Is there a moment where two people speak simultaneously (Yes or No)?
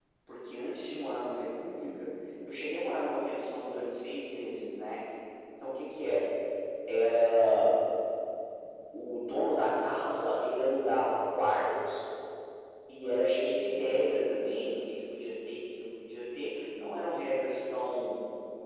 No